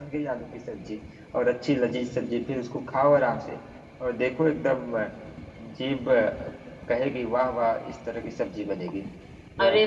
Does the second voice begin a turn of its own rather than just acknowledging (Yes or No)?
Yes